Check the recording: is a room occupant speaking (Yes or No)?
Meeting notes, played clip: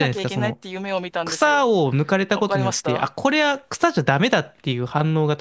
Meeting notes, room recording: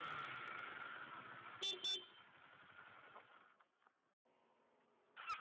No